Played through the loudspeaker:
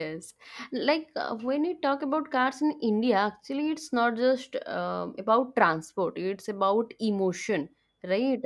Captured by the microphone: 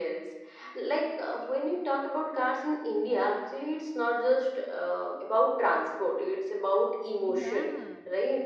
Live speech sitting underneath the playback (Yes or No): Yes